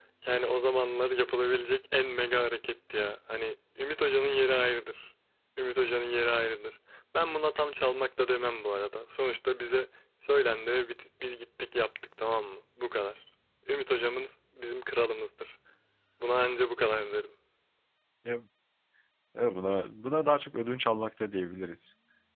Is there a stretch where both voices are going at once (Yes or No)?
No